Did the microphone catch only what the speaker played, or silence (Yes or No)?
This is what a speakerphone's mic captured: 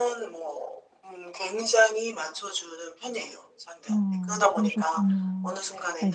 No